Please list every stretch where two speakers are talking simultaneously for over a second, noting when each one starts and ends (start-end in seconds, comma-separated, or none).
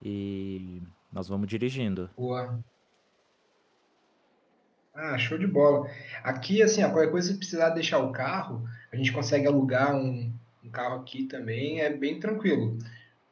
none